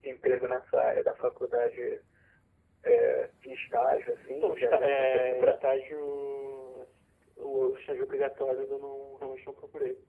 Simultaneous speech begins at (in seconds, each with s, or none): 4.2 s